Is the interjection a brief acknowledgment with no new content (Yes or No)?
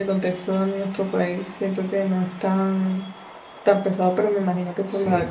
Yes